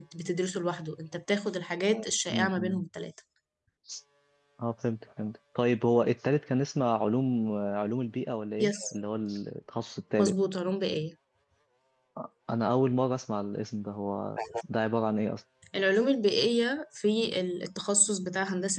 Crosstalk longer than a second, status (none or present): none